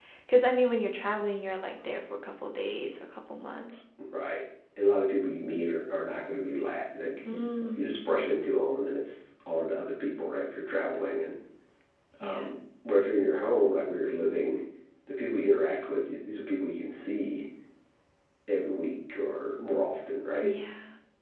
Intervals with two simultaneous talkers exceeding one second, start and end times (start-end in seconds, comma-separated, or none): none